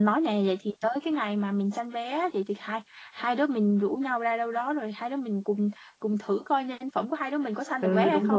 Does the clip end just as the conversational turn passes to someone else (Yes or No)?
Yes